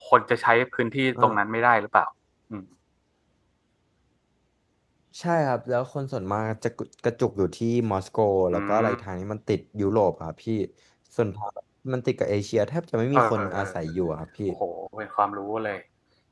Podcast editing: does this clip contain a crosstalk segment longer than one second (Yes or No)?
No